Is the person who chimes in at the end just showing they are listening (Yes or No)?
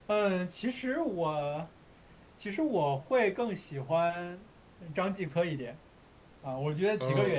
Yes